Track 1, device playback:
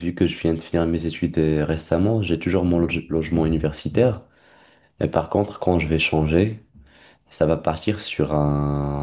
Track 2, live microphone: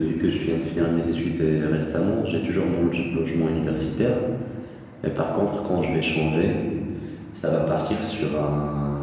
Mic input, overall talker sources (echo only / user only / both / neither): echo only